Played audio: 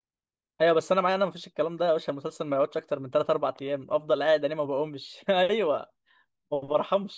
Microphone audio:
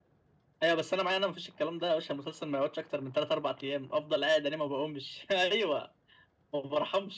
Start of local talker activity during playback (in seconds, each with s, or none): none